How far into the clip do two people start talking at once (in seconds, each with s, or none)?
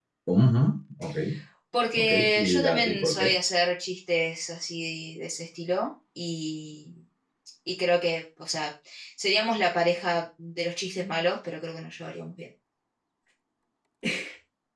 2.0 s